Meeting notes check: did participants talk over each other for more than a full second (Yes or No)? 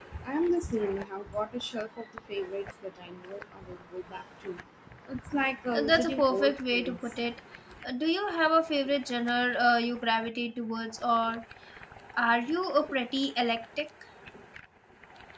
Yes